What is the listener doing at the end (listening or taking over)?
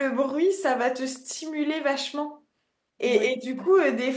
listening